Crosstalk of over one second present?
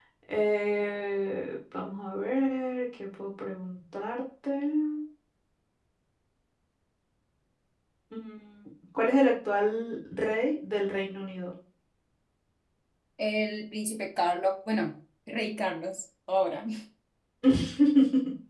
No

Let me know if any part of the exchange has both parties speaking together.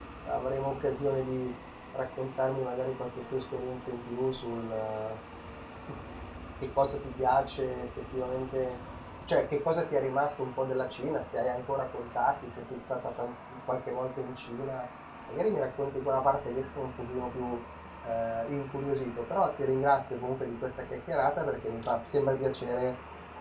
No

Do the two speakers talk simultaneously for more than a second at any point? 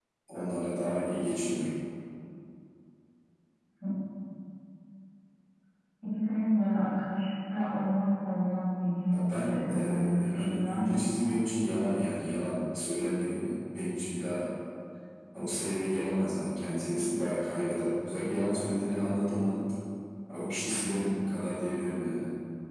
Yes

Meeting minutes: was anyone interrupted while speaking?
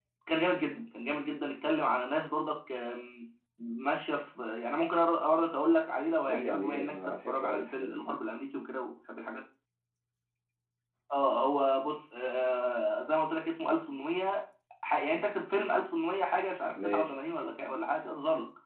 Yes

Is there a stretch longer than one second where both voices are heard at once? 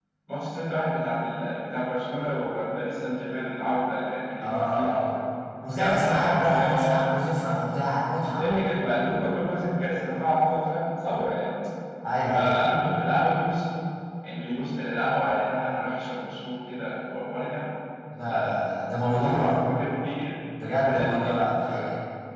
Yes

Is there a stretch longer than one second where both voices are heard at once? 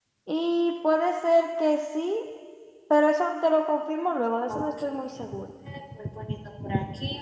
No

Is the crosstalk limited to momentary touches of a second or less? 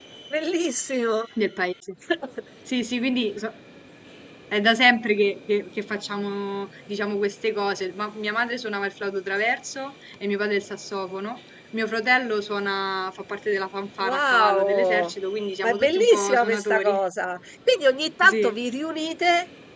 No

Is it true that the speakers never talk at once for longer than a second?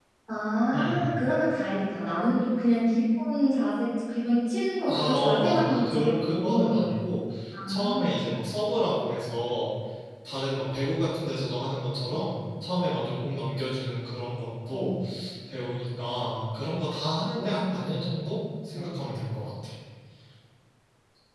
No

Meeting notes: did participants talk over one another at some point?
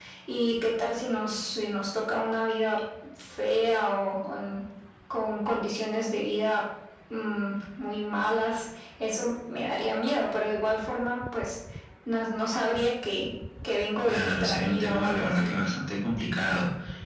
Yes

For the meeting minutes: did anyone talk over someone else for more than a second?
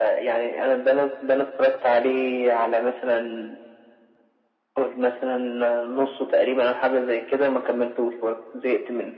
No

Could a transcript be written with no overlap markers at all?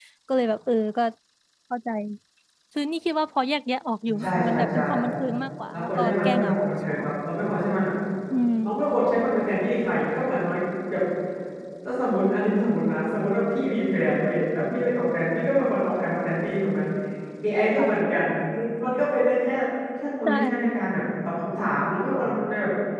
No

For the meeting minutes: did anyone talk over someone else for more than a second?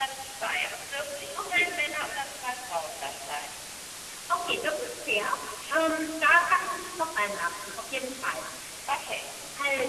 No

